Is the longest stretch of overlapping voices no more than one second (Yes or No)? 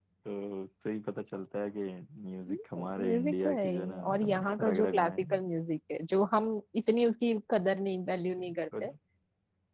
No